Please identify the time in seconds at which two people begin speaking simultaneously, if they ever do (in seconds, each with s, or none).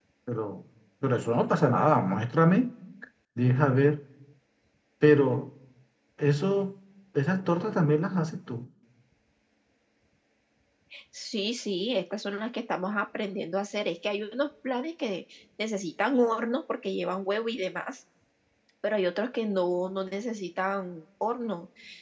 none